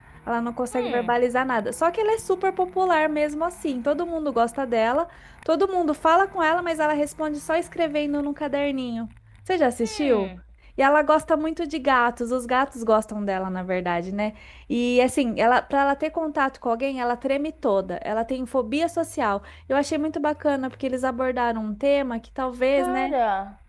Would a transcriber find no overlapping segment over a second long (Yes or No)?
Yes